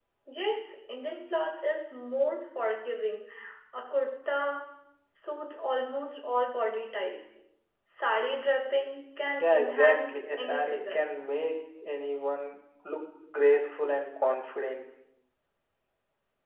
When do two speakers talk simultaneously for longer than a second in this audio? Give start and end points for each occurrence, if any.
9.4-11.1

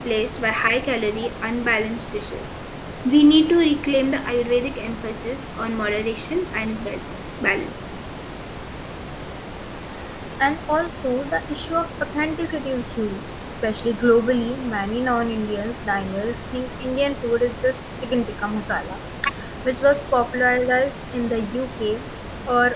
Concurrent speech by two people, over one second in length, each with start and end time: none

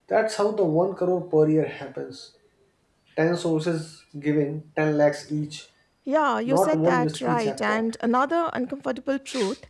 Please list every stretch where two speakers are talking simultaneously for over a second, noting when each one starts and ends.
6.5-7.8

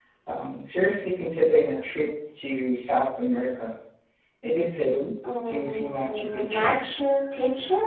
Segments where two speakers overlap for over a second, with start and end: 5.4-6.7

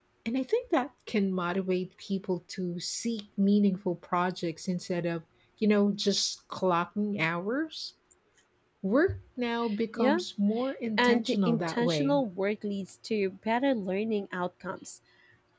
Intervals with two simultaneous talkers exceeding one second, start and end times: 11.0-12.2

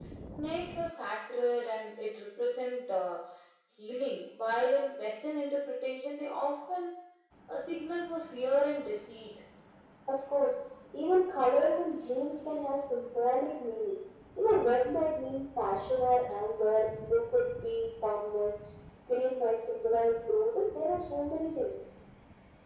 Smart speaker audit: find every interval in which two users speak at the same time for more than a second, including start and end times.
none

